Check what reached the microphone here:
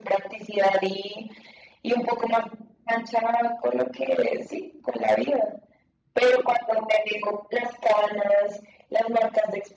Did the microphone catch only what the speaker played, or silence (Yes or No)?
Yes